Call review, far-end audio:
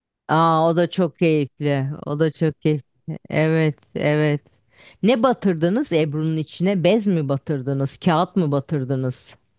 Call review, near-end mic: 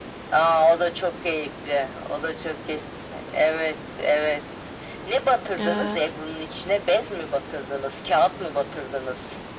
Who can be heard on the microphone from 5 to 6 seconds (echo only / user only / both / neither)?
both